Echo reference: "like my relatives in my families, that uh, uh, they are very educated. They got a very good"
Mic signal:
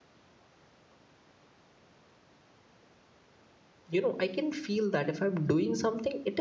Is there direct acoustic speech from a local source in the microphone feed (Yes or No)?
Yes